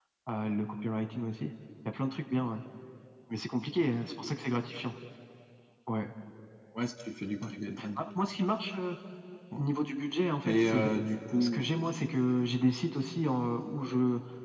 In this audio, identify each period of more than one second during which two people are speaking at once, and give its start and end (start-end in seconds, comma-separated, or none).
10.4-11.7